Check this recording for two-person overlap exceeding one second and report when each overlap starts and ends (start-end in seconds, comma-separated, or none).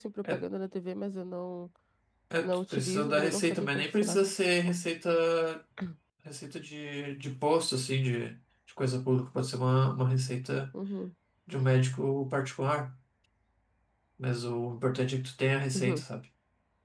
2.4-4.2